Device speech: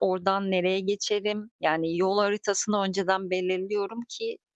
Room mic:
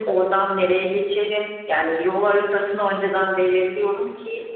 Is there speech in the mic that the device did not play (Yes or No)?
No